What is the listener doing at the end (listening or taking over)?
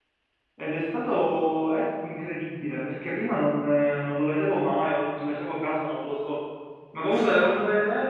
listening